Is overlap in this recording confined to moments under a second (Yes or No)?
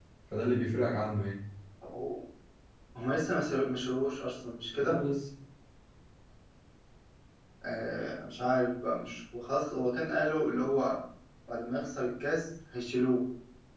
Yes